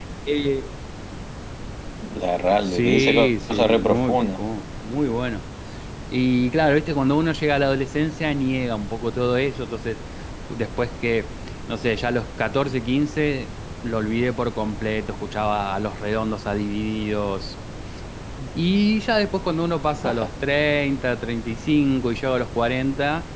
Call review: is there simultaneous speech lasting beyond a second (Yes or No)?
Yes